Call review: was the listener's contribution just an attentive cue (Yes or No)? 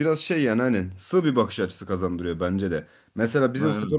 Yes